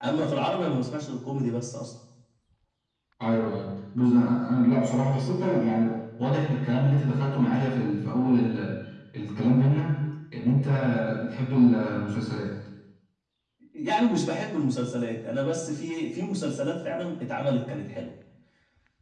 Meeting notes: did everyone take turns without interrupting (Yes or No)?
Yes